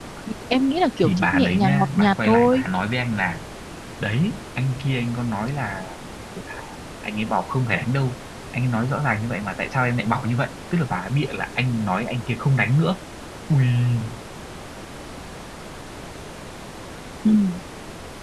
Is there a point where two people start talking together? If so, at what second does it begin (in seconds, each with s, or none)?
1.0 s